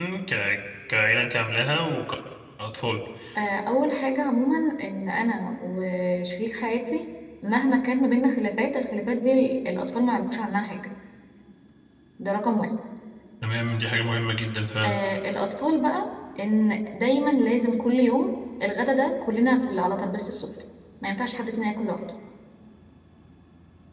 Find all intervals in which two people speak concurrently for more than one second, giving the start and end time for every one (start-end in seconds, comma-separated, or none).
none